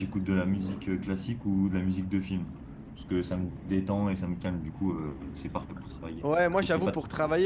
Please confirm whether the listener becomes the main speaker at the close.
Yes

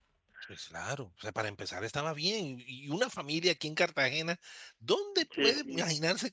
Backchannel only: Yes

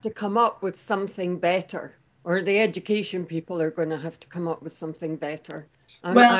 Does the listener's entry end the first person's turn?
No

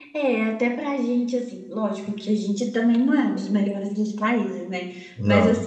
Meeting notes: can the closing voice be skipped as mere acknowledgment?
Yes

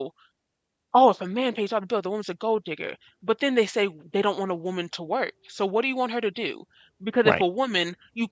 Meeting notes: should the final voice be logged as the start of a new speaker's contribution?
No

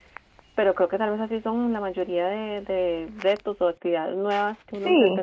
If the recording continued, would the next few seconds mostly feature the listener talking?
Yes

